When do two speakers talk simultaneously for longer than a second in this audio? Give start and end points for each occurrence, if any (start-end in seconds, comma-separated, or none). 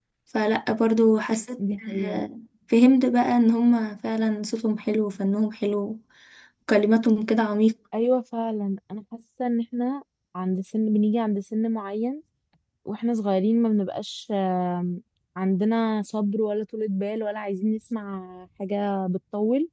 none